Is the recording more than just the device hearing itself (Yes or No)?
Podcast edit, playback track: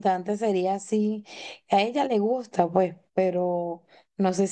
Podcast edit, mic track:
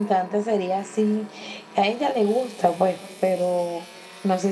No